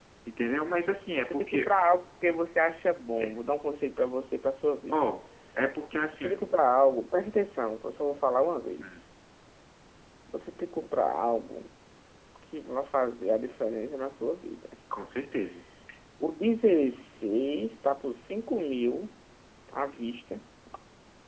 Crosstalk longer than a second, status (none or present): none